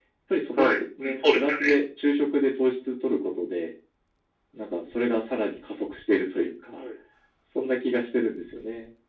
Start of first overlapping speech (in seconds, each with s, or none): 0.6 s